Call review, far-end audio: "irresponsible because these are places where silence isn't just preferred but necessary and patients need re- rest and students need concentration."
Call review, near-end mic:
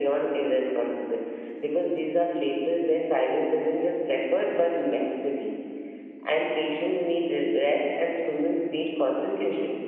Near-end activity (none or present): none